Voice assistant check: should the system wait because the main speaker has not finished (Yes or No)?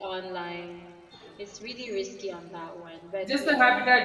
No